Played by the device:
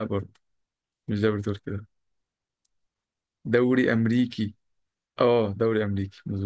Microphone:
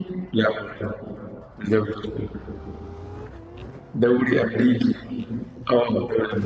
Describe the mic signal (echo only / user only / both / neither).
echo only